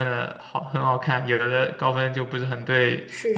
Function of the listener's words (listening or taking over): taking over